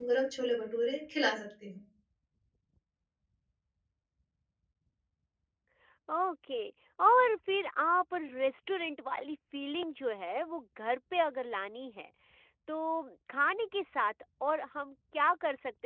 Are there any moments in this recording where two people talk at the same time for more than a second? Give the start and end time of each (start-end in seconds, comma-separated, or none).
none